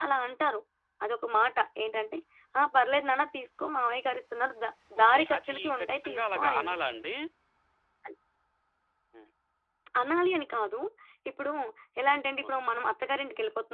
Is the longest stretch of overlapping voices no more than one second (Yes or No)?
No